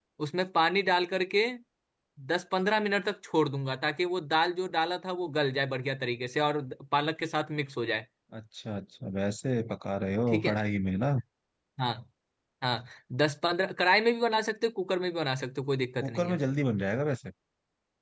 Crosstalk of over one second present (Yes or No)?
No